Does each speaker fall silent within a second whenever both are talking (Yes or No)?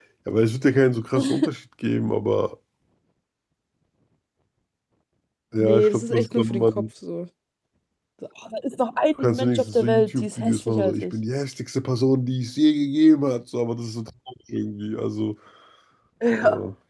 No